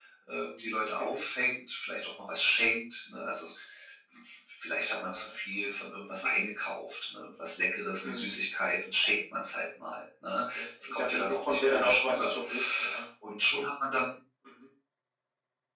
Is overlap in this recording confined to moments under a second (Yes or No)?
No